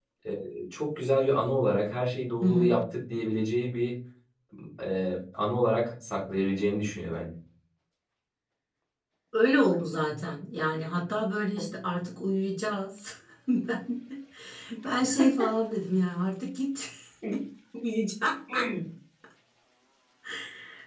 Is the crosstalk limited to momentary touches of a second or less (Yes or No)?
Yes